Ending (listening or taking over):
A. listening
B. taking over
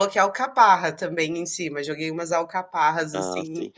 B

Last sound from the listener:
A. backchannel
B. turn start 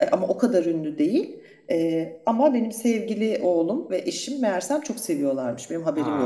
A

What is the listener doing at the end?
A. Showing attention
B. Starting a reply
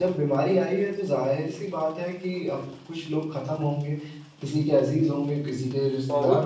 B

